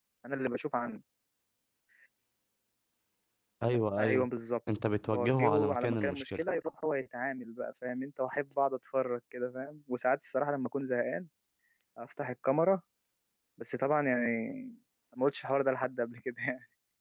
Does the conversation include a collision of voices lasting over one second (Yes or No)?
Yes